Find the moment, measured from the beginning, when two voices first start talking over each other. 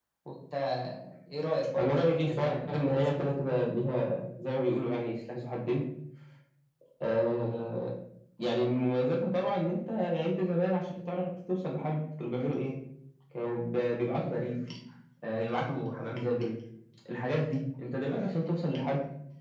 2 s

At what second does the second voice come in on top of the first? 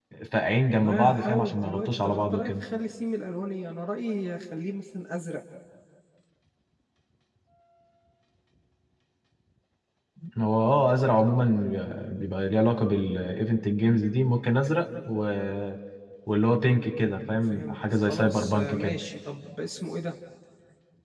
1 s

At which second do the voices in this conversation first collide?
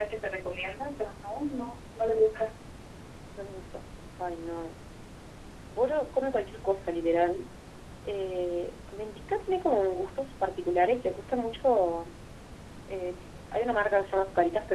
none

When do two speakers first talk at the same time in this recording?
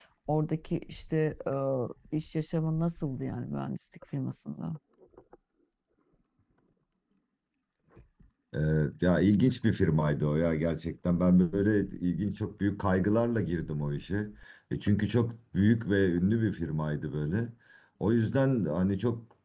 none

